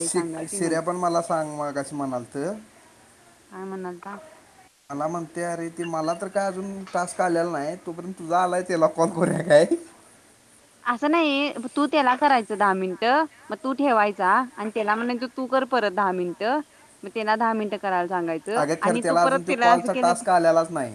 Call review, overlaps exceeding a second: present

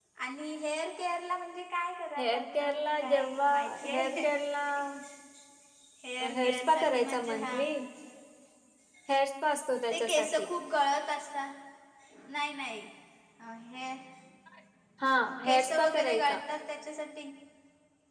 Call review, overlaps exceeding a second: present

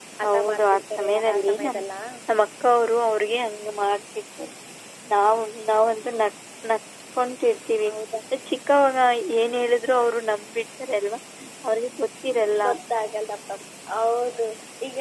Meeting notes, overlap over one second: present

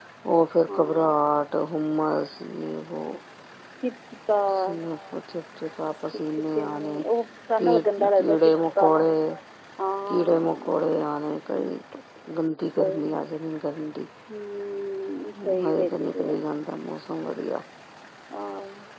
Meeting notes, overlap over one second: present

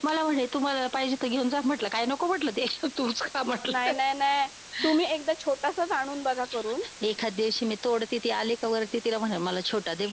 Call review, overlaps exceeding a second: none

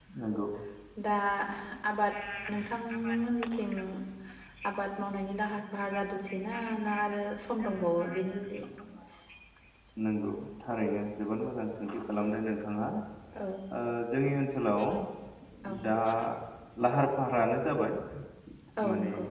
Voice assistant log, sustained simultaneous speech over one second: none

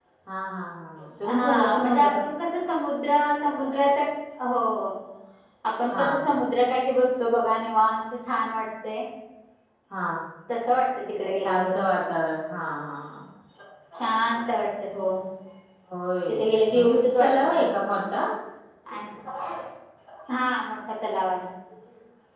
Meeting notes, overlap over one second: present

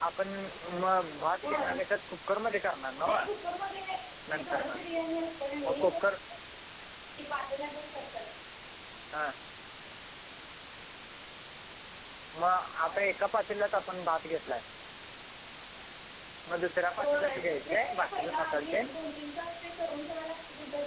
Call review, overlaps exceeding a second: present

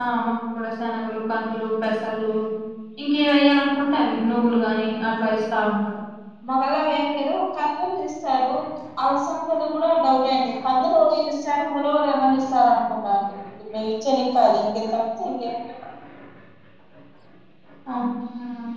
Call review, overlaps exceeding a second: none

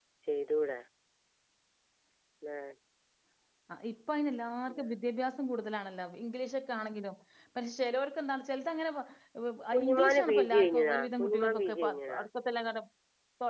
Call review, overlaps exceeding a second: present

